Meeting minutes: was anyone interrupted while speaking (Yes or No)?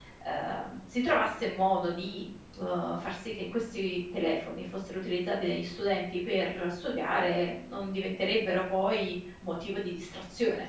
No